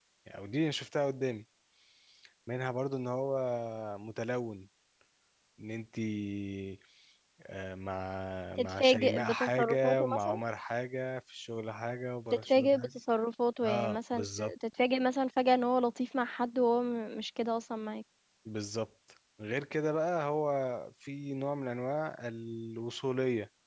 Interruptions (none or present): present